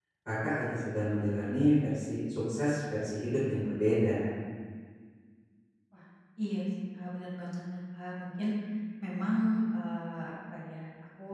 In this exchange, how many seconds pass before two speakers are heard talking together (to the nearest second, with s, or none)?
none